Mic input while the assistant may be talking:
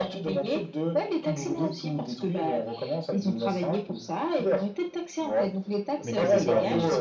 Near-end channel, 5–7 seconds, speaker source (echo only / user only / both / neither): both